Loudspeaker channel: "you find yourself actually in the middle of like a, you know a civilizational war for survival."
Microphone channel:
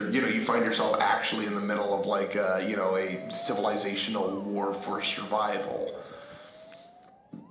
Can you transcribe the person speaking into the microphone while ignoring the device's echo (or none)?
none